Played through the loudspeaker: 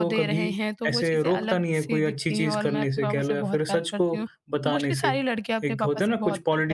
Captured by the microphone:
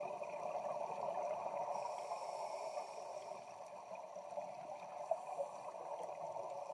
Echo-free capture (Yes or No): Yes